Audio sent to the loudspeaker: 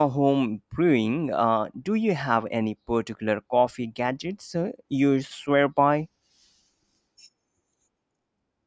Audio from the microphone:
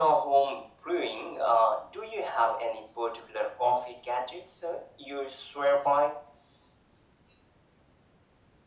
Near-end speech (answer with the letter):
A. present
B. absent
B